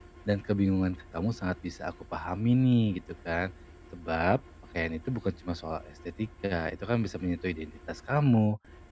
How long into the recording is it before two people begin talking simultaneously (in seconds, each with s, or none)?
none